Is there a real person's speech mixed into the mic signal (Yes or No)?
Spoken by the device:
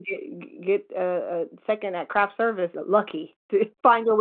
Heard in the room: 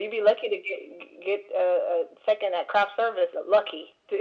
No